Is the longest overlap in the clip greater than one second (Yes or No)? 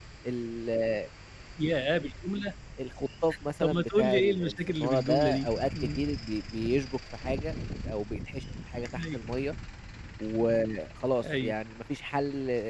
Yes